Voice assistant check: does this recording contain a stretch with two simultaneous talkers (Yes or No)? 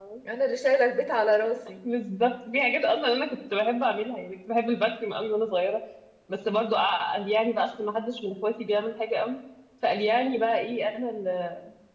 No